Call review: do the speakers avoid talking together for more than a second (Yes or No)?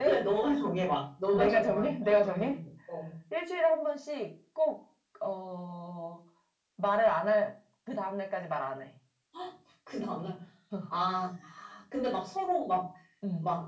No